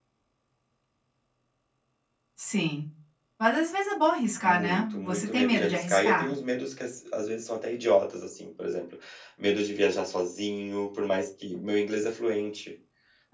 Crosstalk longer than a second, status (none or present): present